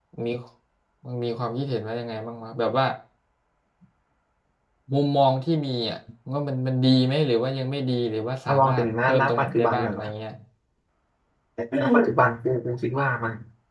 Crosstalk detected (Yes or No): Yes